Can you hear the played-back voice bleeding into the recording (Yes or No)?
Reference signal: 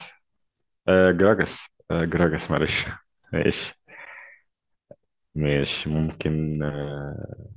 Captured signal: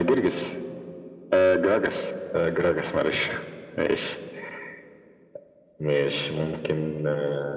Yes